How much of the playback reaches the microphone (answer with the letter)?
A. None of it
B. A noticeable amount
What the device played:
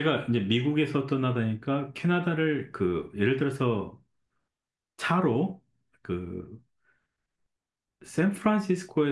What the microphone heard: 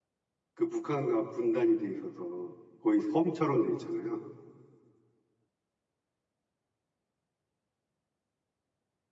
A